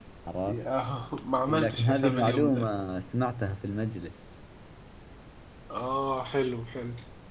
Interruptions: present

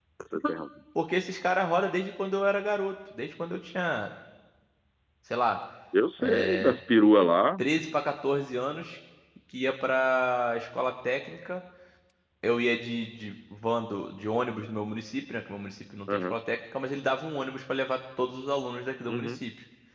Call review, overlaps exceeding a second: none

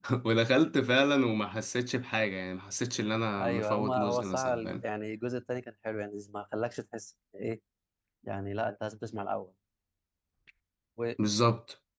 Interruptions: present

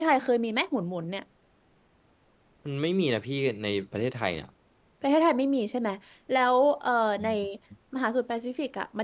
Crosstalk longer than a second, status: none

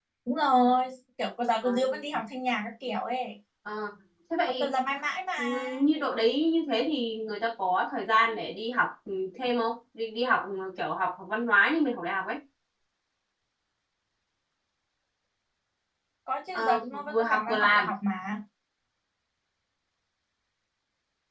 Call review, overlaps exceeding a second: present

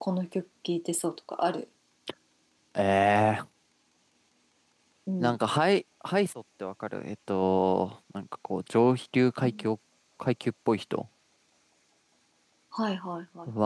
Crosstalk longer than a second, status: none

